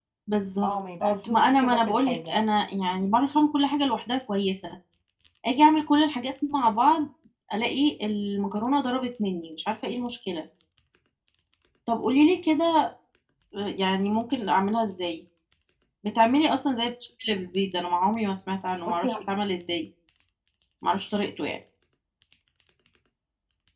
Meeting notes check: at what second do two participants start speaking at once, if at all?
0.6 s

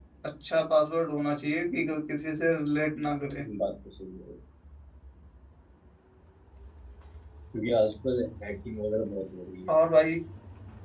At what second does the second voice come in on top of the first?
none

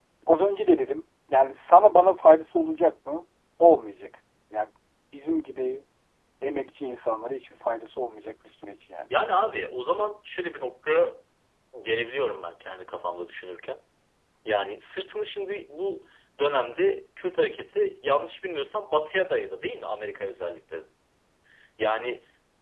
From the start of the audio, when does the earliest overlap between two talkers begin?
none

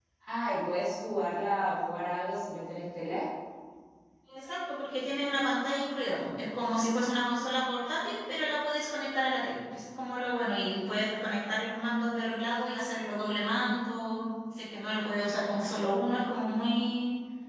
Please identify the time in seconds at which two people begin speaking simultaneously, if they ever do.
none

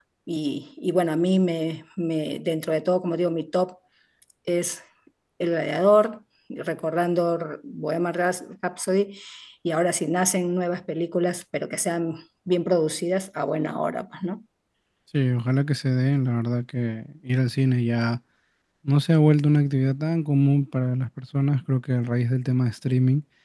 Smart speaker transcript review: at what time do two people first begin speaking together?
none

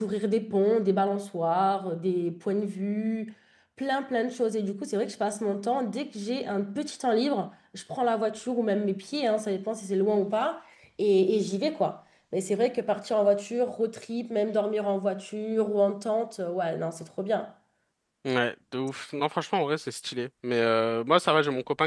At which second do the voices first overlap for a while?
none

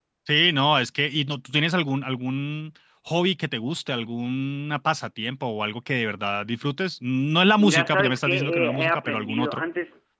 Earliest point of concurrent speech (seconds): 7.6 s

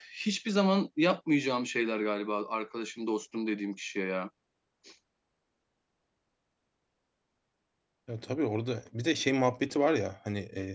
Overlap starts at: none

